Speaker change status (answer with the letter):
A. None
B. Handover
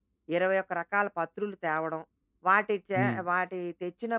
A